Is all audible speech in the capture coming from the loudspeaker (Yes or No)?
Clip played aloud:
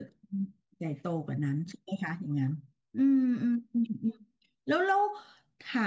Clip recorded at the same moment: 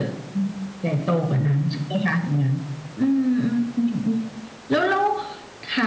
Yes